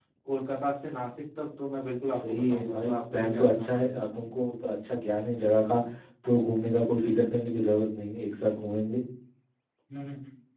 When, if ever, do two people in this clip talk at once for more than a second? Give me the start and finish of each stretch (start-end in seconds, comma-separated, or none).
2.1-4.1